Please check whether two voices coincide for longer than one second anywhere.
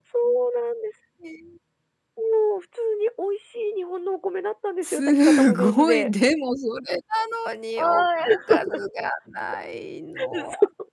Yes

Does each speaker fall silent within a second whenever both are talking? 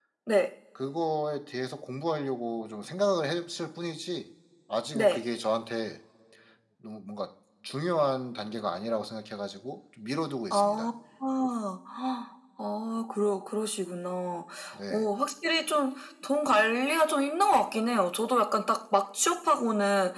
Yes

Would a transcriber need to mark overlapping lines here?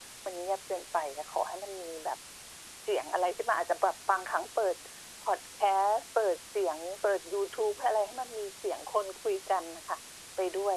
No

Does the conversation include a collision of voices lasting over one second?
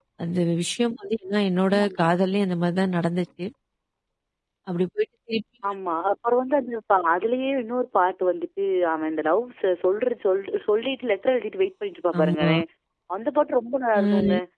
No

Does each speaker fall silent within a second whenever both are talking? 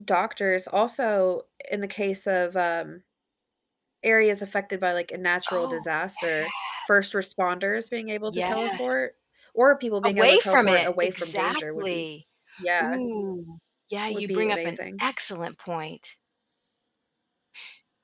No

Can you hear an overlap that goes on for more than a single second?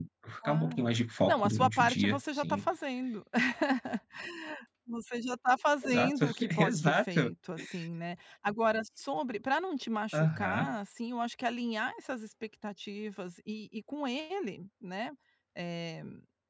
Yes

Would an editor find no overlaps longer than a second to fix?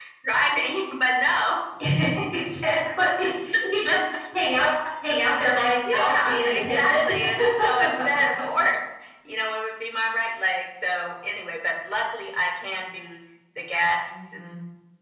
No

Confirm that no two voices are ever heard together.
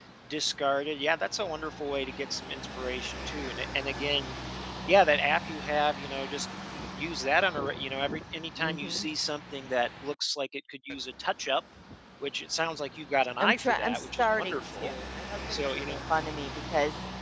No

